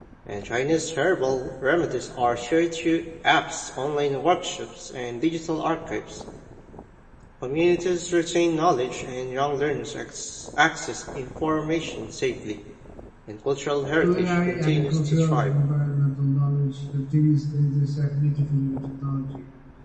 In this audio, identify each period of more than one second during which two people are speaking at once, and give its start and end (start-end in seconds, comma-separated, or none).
14.0-15.6